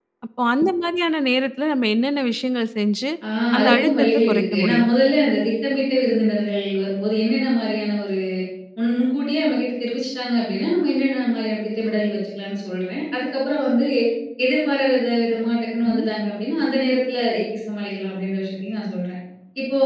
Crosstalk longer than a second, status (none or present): present